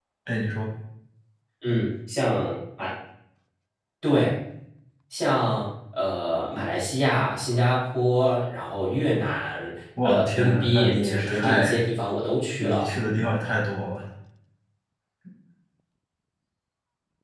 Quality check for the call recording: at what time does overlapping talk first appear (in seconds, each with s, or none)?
10.0 s